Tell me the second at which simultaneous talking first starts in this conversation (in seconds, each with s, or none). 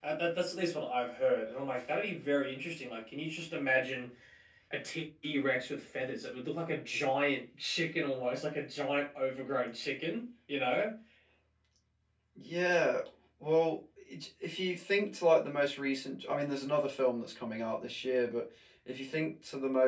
none